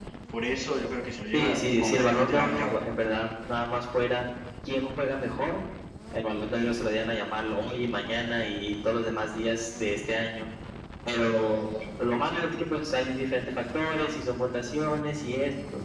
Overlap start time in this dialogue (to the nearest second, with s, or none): 1 s